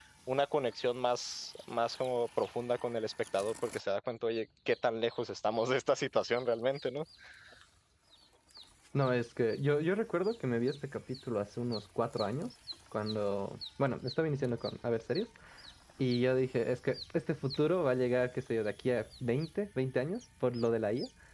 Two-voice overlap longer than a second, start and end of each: none

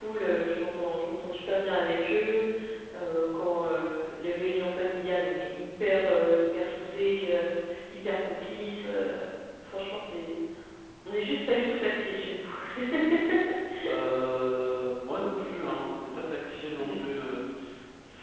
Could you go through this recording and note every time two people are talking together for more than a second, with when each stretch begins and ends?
none

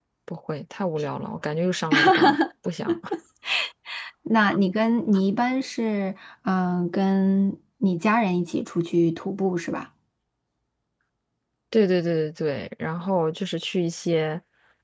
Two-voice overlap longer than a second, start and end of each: none

